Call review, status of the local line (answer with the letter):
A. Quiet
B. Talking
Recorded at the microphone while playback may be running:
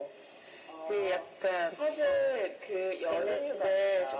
A